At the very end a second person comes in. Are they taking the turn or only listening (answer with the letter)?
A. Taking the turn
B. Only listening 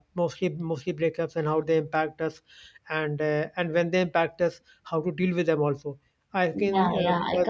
A